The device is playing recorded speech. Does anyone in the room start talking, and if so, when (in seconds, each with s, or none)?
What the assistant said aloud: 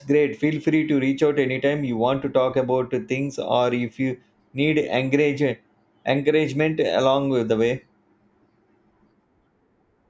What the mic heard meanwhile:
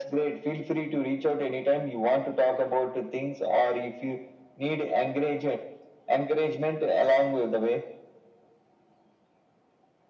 none